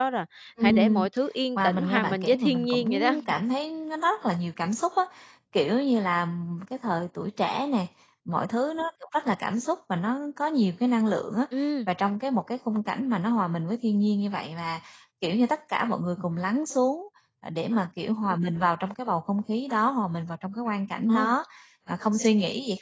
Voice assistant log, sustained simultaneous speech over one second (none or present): present